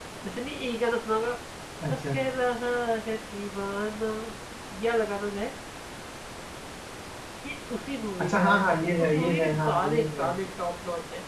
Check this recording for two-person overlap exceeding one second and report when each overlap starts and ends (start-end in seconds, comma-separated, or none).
9.0-10.3